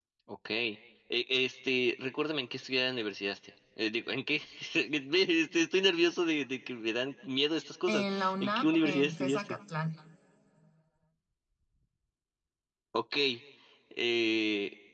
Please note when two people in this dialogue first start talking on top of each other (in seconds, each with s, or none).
7.9 s